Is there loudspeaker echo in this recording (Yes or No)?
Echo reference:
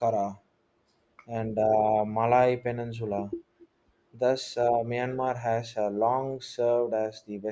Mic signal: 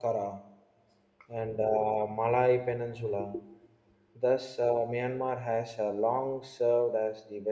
Yes